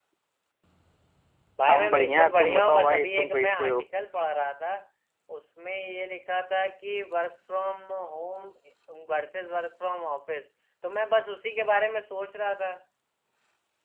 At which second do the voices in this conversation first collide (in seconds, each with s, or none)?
1.7 s